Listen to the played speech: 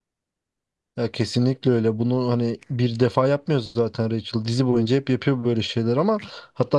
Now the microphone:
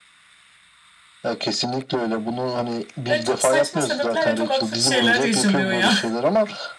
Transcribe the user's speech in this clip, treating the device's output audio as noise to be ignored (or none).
Ya çok saçma sebeplerle çok absürt şeyler yaşanıyor ya.